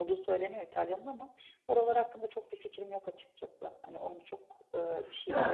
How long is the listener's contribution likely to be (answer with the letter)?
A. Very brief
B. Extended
B